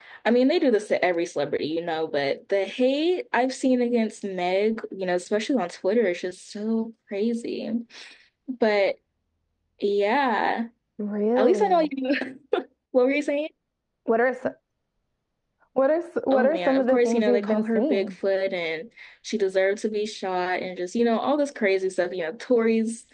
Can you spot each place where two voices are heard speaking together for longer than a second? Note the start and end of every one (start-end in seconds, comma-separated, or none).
16.3-18.1